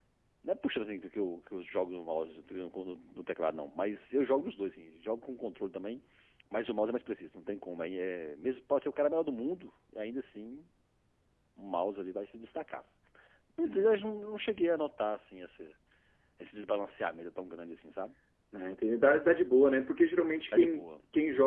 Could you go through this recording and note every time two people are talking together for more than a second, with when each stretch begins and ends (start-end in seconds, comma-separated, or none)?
none